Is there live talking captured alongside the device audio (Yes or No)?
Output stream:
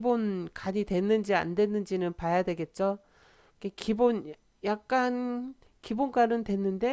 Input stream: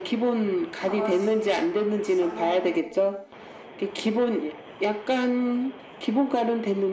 Yes